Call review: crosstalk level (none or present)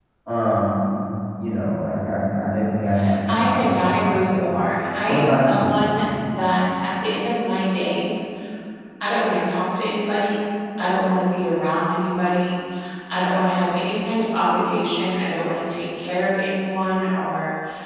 present